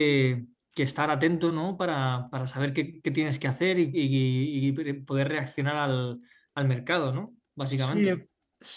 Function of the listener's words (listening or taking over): taking over